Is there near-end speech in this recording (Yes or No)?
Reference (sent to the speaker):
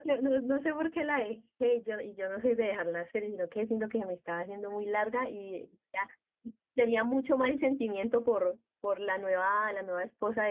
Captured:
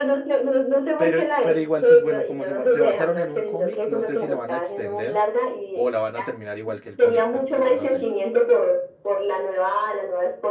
Yes